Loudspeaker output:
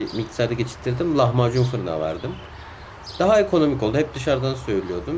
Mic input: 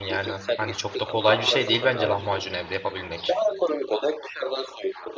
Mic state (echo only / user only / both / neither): both